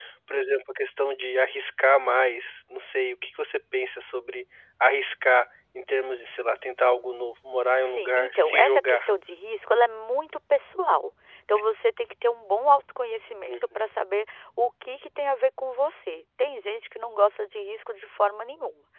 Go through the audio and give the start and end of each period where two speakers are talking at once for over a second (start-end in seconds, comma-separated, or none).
7.8-9.1